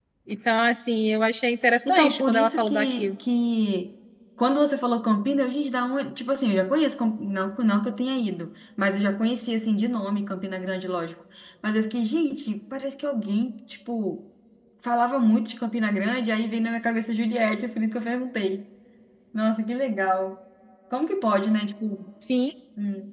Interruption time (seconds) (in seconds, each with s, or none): 1.9 s